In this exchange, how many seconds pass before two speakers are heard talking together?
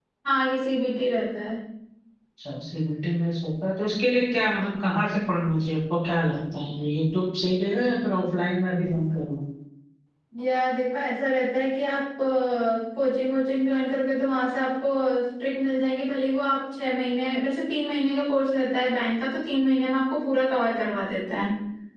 none

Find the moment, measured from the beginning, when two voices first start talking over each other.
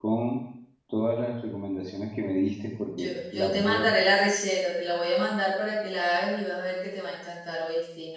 3.0 s

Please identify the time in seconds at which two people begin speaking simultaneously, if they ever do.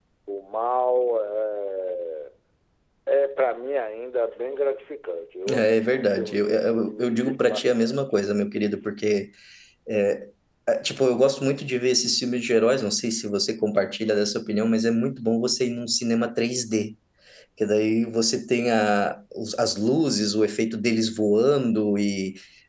5.5 s

